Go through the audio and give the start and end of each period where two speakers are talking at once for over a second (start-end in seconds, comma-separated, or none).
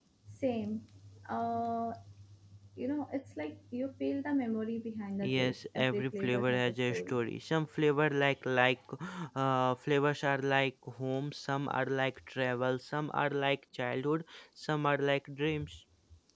5.2-7.2